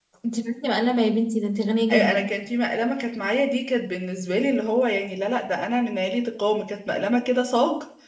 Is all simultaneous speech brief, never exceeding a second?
Yes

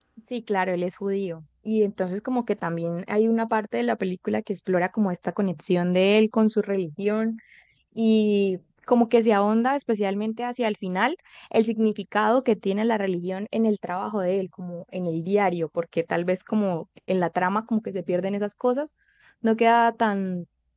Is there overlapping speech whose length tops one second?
No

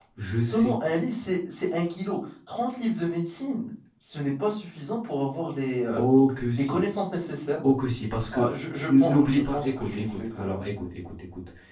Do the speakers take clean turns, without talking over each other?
No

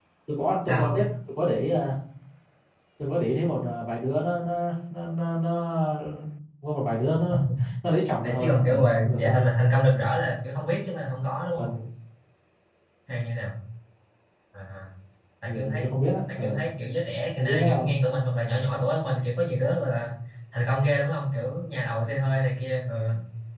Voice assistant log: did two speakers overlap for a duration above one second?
Yes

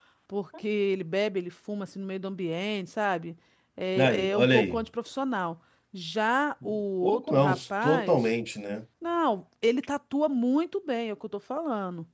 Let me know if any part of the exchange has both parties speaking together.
Yes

